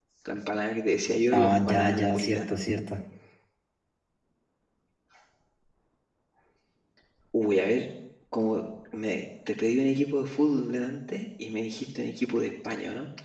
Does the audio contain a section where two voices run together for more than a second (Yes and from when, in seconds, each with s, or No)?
Yes, from 1.3 s